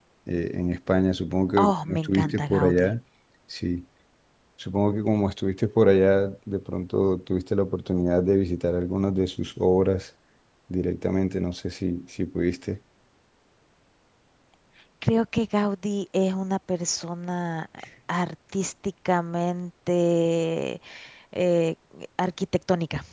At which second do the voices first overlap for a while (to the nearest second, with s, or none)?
2 s